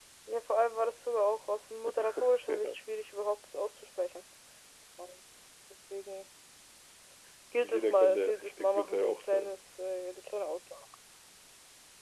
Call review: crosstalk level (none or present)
present